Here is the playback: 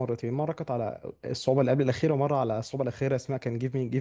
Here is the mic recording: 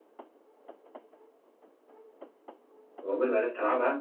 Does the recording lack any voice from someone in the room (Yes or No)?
No